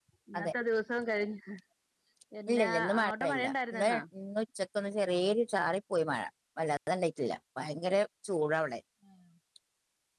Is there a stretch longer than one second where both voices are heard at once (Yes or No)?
Yes